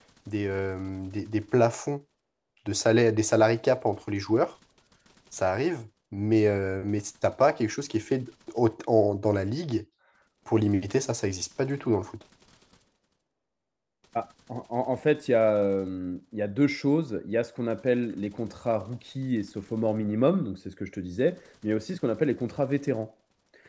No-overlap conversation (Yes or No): Yes